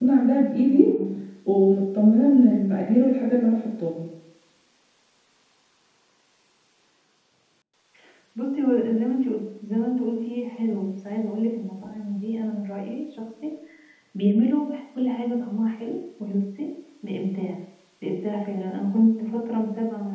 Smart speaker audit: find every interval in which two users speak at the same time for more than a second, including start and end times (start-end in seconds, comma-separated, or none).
none